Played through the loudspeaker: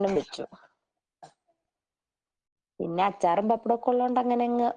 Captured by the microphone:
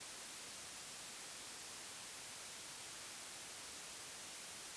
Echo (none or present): none